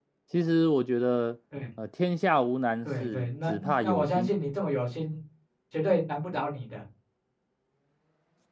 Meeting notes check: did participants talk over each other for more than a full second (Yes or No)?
Yes